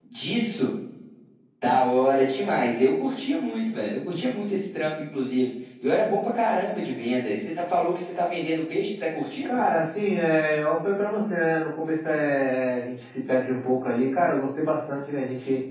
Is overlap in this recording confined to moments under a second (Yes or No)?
Yes